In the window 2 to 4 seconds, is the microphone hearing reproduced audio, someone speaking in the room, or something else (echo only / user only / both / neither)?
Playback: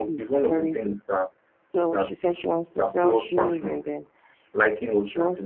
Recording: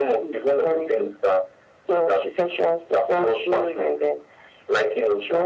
echo only